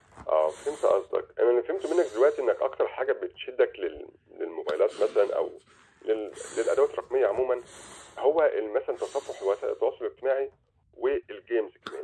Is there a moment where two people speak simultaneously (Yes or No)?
No